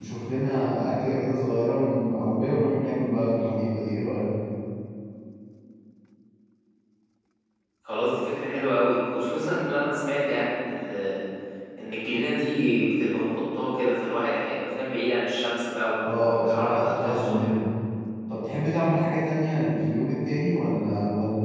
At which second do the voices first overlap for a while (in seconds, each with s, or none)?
16.0 s